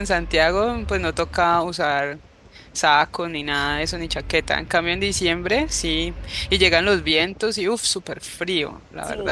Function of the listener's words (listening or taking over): taking over